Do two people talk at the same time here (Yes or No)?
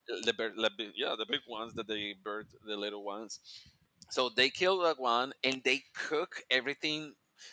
No